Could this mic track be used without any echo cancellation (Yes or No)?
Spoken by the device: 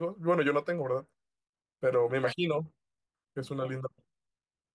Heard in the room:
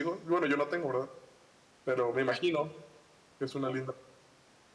No